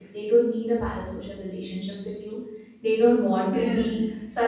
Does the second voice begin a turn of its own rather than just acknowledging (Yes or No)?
No